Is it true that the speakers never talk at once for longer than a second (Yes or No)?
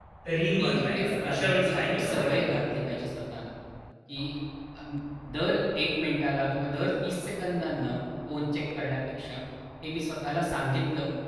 No